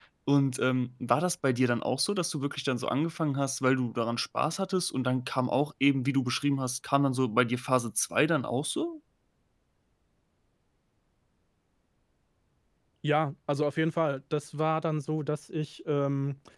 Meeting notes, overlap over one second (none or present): none